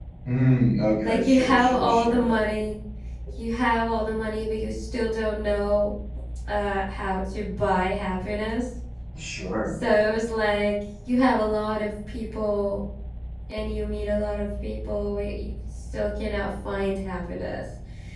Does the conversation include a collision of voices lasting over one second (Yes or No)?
Yes